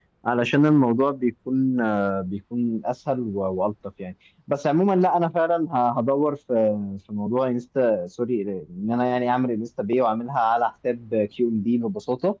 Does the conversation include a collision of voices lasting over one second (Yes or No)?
No